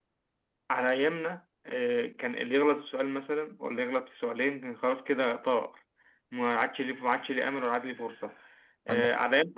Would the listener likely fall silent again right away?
Yes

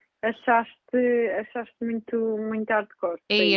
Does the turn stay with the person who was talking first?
No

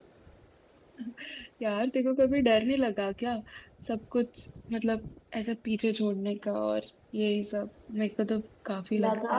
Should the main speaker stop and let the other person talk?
Yes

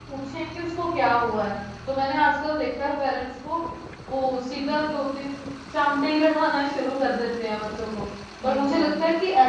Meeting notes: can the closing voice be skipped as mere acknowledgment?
Yes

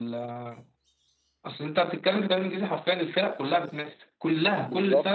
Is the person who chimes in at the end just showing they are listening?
No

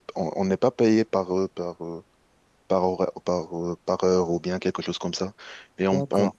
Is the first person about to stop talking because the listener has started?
No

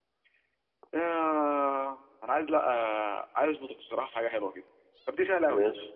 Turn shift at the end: No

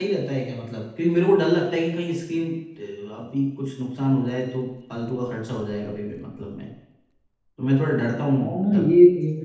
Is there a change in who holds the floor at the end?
Yes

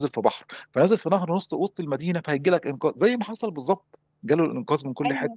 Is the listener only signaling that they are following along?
Yes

